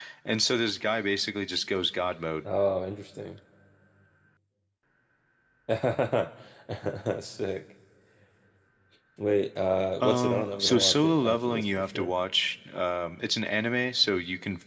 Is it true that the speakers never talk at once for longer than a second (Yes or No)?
No